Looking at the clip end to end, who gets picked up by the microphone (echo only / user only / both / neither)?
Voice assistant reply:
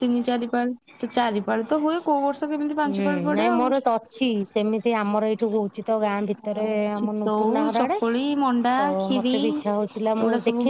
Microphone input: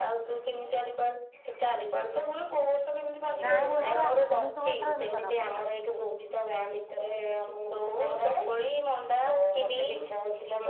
both